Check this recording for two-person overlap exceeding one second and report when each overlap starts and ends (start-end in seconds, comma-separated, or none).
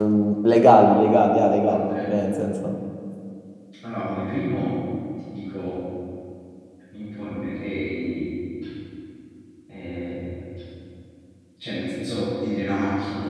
none